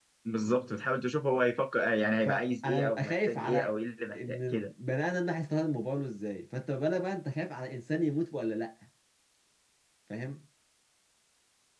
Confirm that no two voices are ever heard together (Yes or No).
No